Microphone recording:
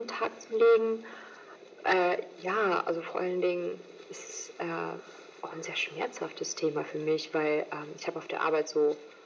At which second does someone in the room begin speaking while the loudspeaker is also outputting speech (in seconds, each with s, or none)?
none